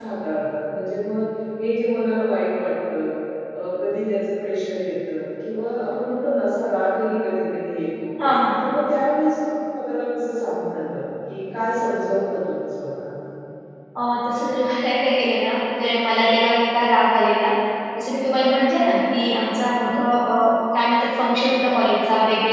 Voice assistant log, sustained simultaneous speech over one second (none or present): none